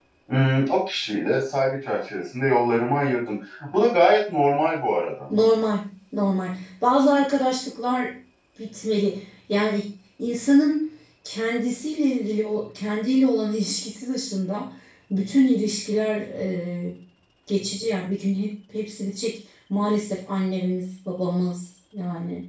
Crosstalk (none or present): none